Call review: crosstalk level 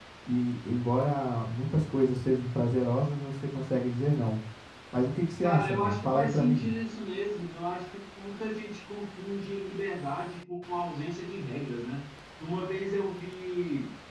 present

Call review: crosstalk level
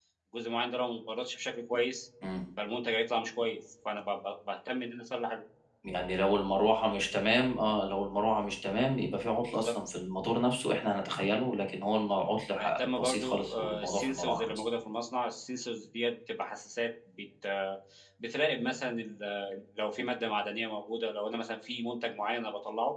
present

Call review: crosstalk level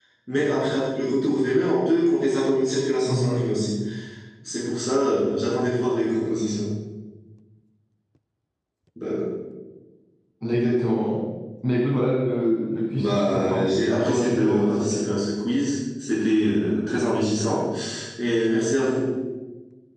present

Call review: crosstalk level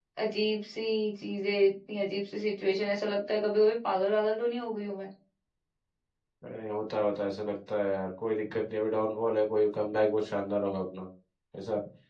none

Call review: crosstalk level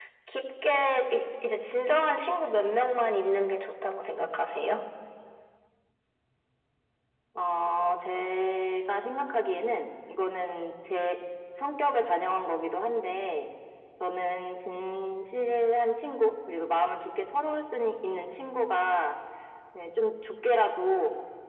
none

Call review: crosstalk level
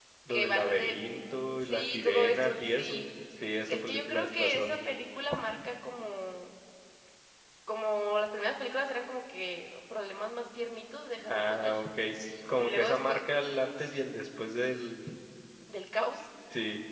present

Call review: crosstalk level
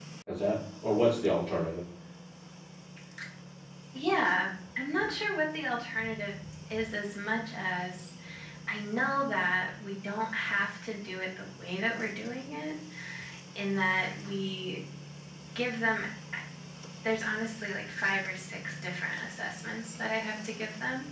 none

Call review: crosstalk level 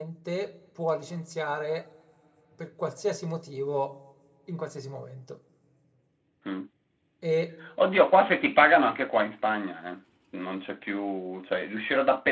none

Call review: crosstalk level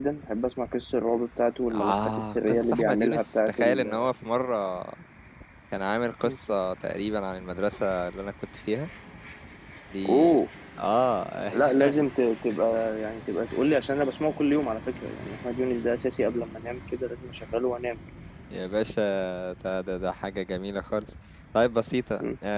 present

